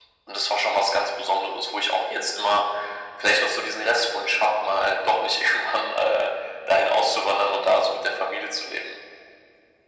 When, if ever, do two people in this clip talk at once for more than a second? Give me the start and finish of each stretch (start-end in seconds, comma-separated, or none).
none